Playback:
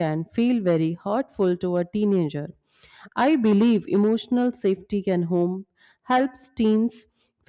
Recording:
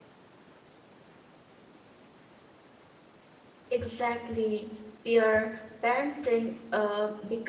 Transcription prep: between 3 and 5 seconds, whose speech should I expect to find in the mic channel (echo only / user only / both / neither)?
user only